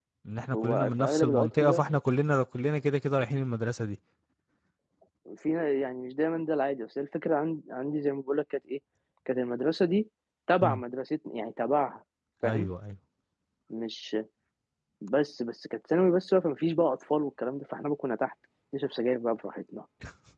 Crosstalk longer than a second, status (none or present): present